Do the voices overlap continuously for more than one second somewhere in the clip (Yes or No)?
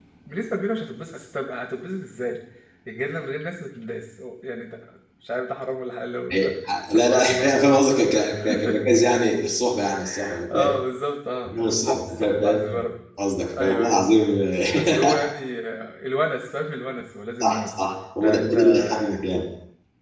Yes